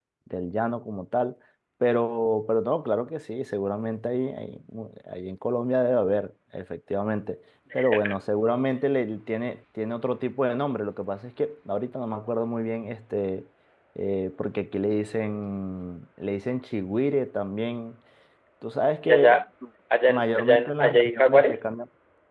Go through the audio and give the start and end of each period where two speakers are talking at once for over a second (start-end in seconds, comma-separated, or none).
20.1-21.7